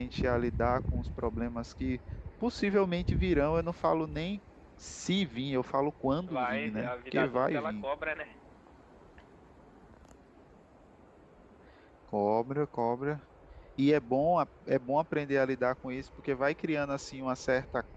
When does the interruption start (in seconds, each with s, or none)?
6.3 s